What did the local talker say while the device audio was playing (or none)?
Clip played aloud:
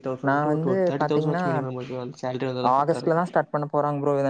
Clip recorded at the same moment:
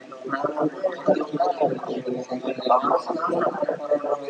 none